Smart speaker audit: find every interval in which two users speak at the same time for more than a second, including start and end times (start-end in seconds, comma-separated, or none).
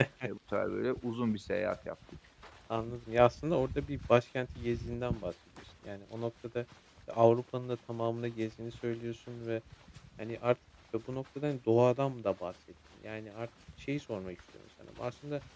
none